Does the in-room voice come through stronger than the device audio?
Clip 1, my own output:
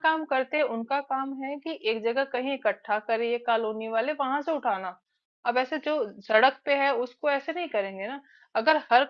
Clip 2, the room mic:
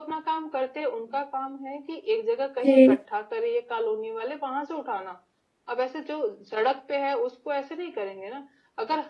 Yes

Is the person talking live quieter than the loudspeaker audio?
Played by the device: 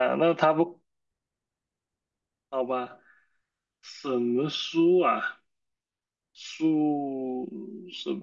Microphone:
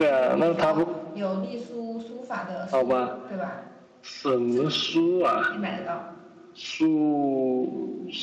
Yes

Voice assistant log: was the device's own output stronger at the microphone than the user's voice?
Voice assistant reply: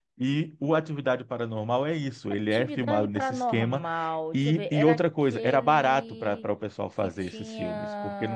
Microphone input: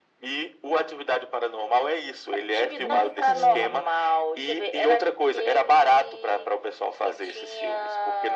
Yes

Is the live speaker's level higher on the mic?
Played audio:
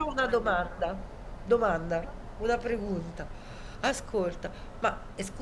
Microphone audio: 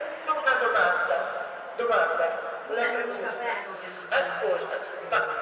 No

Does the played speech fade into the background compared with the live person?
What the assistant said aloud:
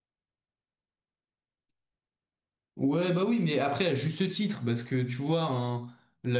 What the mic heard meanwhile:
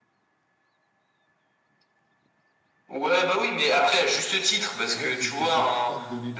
No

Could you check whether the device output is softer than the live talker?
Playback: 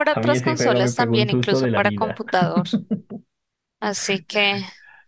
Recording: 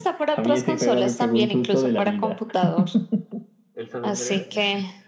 No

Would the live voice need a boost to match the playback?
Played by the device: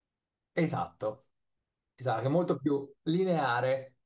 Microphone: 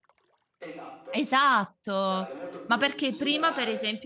No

